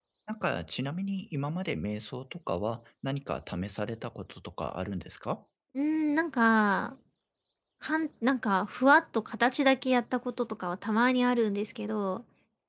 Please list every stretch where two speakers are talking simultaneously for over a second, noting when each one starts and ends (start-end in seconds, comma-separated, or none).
none